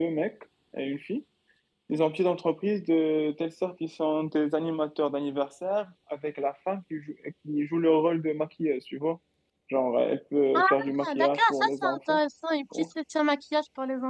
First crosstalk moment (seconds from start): 10.5 s

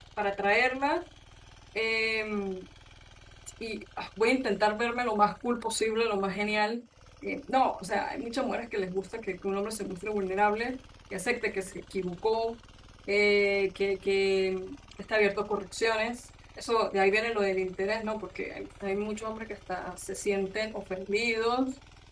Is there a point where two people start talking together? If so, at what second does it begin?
none

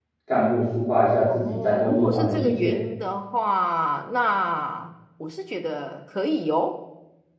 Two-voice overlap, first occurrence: 1.3 s

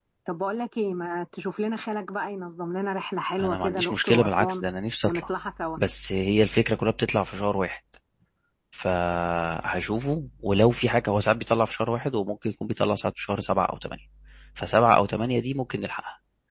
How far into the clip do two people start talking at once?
3.4 s

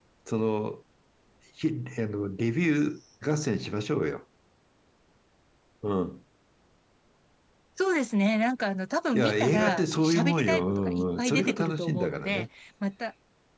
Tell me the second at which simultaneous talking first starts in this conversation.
9.1 s

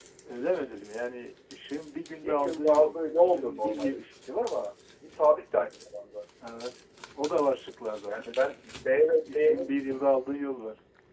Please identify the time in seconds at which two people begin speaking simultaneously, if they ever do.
2.2 s

